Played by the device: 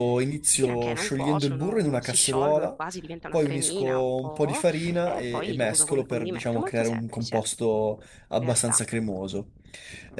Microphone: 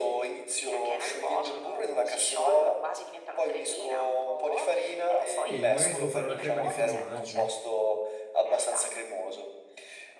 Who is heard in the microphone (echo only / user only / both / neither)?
both